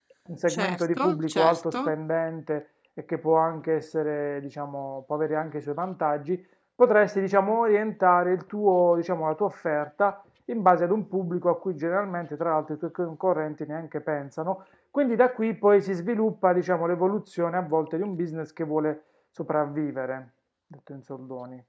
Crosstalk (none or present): present